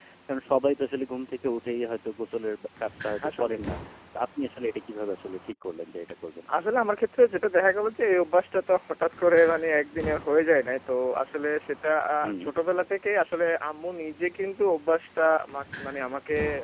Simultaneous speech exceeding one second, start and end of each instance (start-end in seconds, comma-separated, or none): none